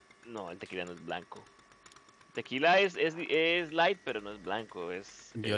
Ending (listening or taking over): taking over